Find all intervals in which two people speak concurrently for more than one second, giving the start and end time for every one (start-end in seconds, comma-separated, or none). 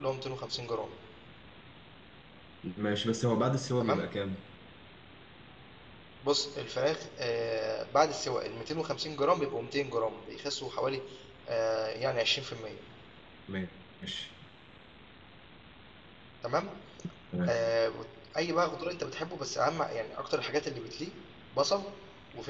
none